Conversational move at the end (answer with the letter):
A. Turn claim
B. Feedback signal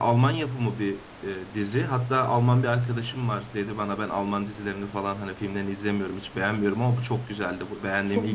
A